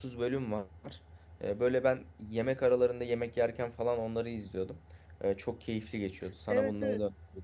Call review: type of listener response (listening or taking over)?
taking over